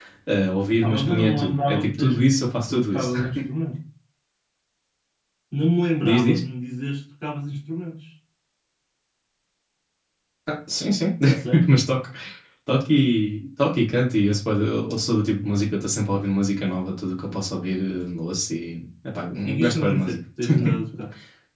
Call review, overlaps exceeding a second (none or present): present